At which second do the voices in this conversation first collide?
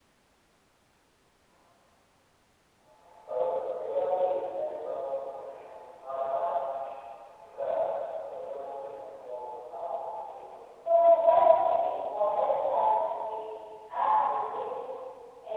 none

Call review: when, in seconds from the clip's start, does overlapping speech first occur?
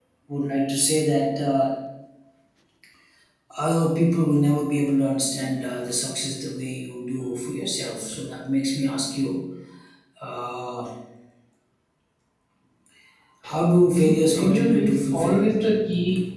13.9 s

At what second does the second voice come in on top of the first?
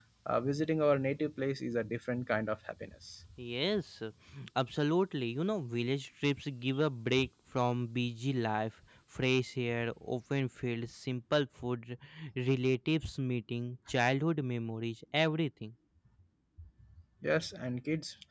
none

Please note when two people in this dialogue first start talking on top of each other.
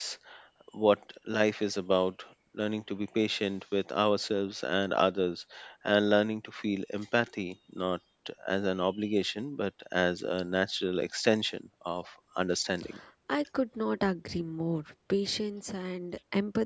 none

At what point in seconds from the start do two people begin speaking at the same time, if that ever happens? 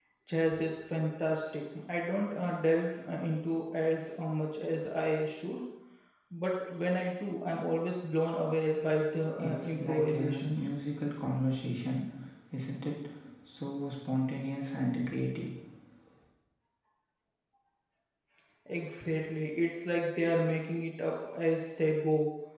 9.4 s

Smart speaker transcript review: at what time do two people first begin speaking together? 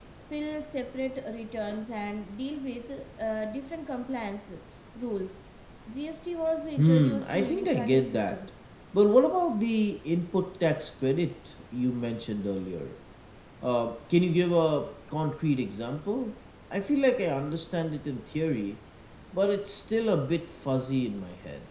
6.8 s

